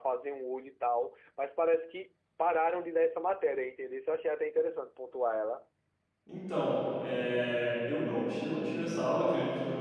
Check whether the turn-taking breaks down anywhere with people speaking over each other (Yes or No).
No